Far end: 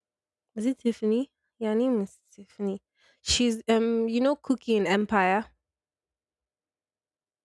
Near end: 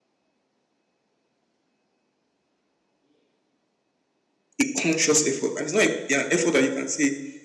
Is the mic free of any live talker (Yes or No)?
No